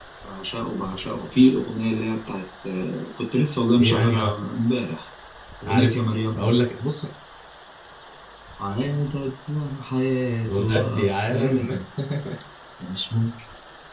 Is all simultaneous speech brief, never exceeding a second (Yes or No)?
No